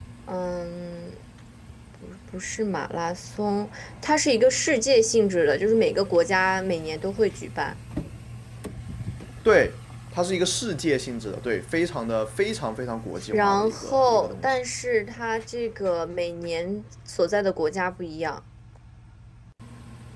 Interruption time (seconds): 13.3 s

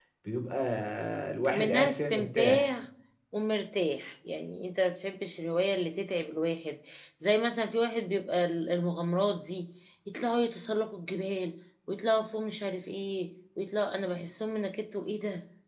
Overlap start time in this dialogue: 1.5 s

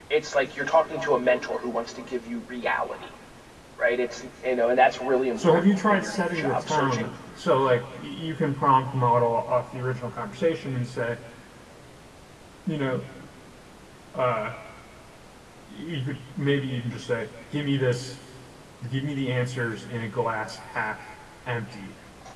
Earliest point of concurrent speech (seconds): 5.4 s

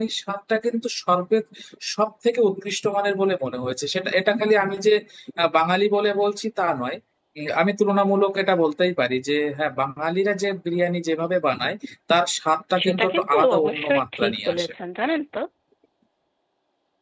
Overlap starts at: 12.8 s

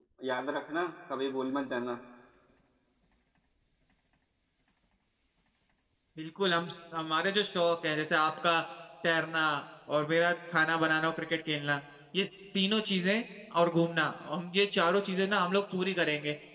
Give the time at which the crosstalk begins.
none

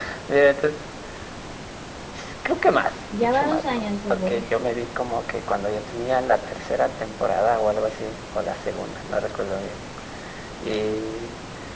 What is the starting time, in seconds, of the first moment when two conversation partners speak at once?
3.1 s

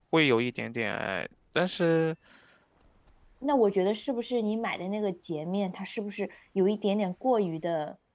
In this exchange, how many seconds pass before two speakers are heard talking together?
none

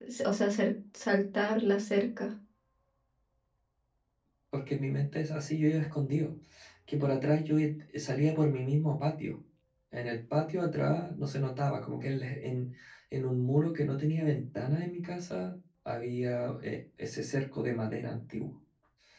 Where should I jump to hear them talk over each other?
none

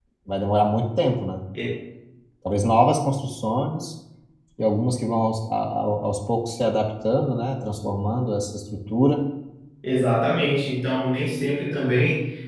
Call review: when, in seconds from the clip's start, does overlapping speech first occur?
none

